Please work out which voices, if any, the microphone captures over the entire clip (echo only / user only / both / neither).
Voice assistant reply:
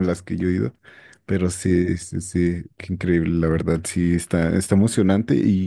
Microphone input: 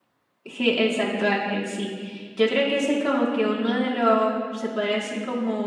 user only